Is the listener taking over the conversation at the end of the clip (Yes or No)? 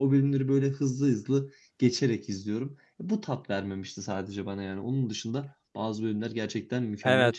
Yes